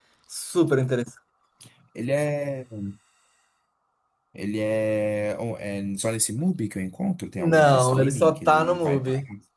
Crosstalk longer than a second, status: present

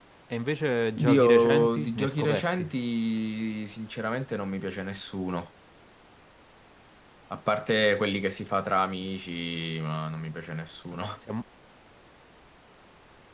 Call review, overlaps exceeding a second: present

